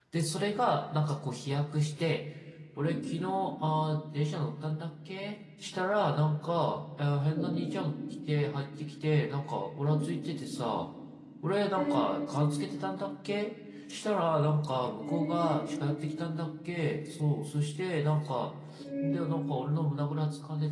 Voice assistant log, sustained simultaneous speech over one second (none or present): none